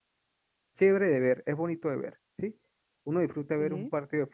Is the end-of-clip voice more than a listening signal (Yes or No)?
No